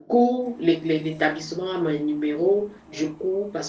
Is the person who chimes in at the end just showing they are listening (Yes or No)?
Yes